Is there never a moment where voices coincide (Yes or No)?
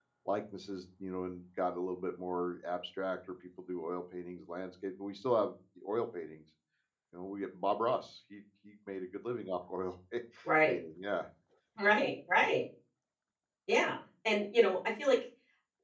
Yes